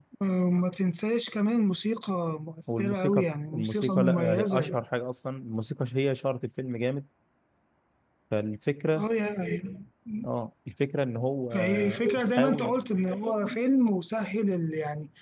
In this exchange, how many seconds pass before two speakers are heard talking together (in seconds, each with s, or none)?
2.8 s